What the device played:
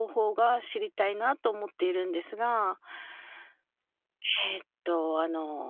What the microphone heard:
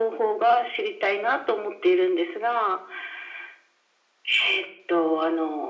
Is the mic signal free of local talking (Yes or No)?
Yes